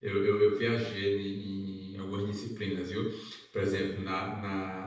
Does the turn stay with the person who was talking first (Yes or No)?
Yes